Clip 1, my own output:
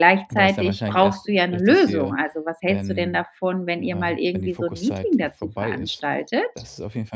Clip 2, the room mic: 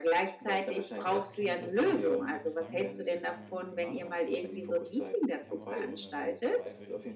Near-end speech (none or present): present